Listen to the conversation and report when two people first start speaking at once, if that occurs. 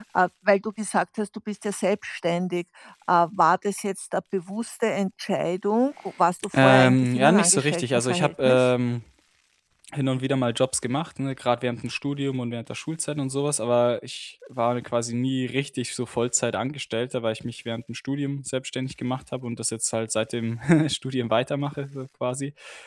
6.5 s

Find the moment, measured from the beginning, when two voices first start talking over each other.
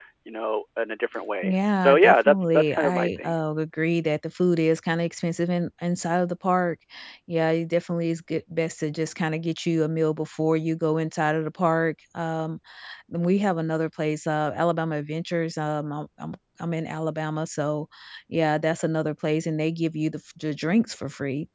1.4 s

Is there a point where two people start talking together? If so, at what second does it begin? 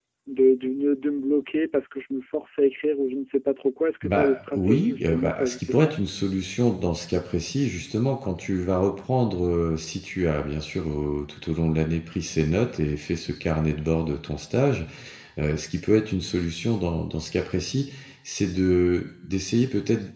4.0 s

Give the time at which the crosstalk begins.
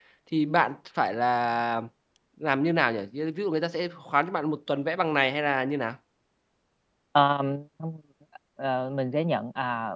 none

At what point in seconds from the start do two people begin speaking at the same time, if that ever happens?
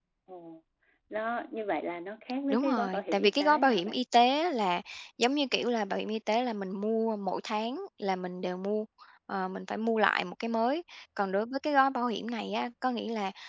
2.5 s

